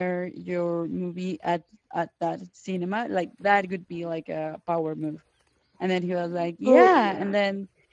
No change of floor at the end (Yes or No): Yes